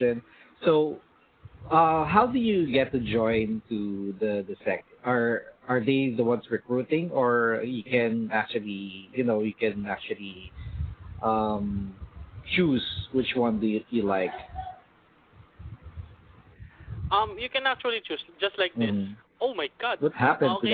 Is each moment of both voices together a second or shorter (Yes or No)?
Yes